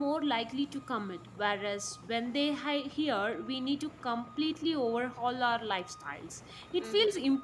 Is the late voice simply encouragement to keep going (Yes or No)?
Yes